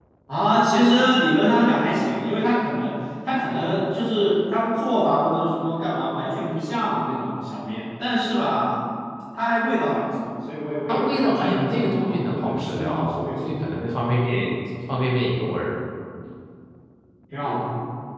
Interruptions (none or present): present